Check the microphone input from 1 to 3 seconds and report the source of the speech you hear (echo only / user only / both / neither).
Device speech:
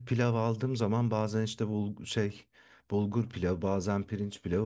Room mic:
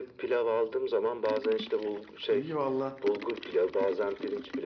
both